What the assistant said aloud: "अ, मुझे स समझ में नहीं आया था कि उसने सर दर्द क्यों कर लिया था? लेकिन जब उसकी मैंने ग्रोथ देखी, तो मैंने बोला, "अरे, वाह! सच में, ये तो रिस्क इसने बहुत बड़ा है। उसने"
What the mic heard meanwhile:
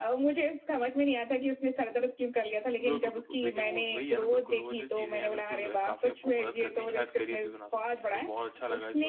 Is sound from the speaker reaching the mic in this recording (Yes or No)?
Yes